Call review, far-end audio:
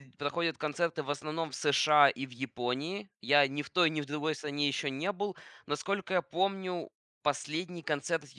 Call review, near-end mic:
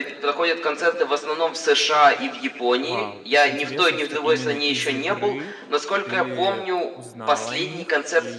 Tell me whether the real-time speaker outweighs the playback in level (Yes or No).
No